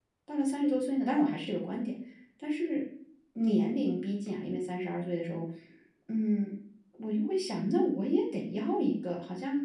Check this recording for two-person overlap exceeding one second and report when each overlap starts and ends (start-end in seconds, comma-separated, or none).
none